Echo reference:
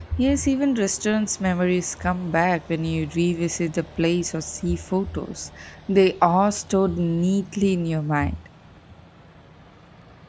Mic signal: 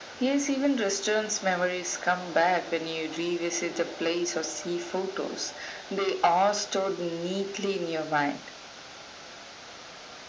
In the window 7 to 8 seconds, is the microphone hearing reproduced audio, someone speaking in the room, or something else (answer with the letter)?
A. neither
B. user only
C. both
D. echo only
D